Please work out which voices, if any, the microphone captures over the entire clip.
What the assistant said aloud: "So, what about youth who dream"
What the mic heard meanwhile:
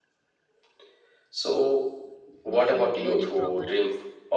both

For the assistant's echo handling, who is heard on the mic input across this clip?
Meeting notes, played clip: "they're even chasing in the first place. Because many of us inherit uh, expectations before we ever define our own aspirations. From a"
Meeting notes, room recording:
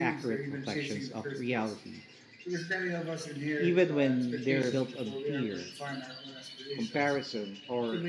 both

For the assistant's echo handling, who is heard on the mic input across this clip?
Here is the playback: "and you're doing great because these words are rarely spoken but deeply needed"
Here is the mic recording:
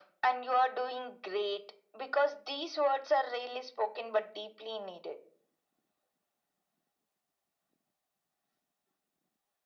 echo only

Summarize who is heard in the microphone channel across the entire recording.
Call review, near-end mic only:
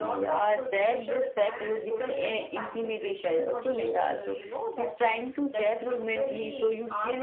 echo only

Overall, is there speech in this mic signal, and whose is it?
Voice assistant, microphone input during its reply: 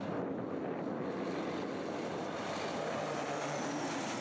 neither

